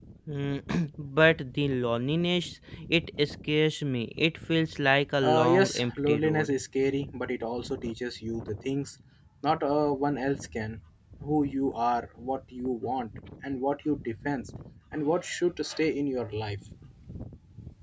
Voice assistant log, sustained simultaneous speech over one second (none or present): present